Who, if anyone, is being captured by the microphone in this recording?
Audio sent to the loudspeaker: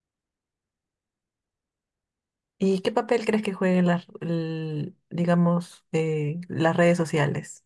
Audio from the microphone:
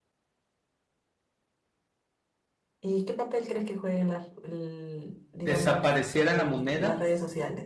both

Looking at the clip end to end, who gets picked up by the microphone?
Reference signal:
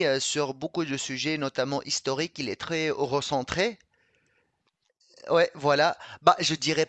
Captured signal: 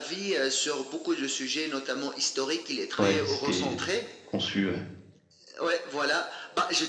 both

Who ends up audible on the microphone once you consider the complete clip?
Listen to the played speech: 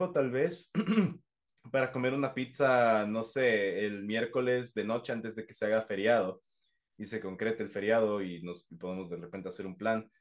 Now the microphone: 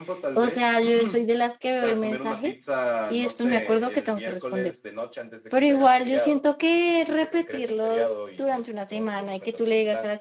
both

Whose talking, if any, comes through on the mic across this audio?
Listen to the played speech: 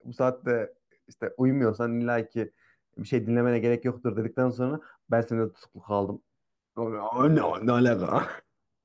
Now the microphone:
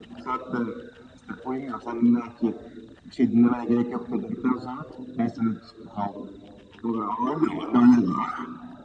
echo only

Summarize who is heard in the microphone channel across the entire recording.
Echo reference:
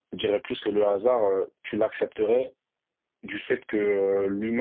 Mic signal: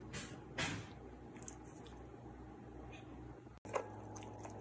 neither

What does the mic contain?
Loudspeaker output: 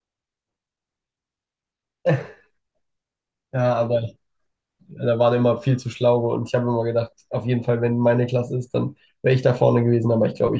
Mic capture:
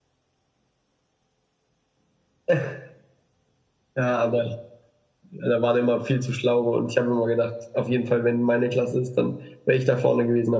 echo only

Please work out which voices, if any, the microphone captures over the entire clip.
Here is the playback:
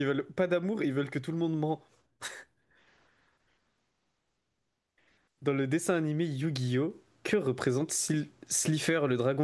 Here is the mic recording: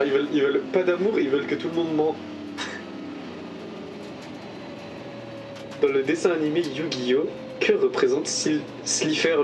echo only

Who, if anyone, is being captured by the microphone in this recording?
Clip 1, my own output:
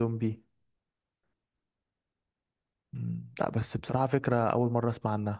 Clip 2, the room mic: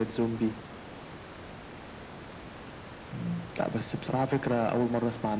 echo only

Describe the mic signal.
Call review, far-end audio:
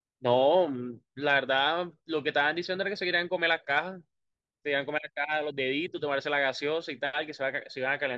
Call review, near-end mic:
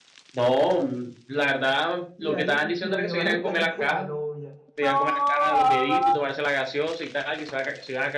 both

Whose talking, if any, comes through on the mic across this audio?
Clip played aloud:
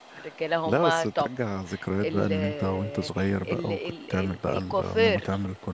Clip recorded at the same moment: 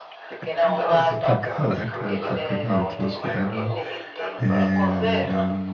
both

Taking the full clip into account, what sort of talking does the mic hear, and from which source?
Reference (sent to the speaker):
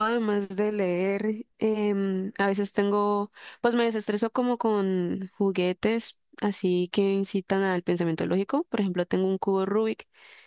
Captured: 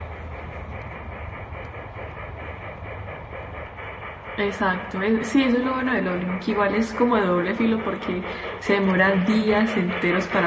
user only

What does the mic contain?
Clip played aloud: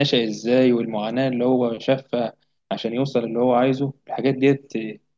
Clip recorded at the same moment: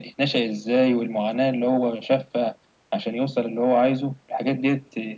echo only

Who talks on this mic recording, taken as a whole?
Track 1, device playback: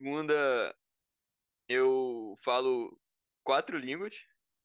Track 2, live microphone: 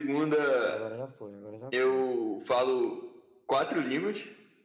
both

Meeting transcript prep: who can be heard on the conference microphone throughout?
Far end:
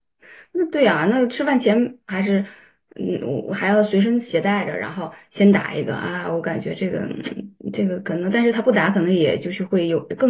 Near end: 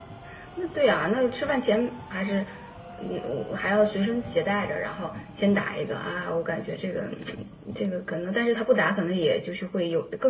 echo only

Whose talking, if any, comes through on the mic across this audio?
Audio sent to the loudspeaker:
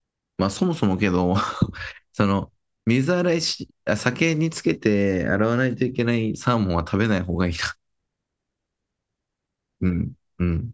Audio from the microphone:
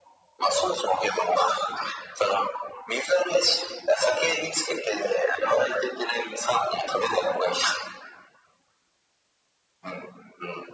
echo only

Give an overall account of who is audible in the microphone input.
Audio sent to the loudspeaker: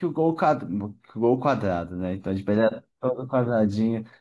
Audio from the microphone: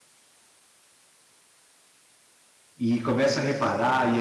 user only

